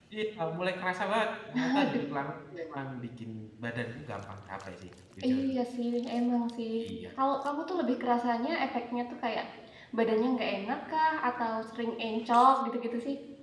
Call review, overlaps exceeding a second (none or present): none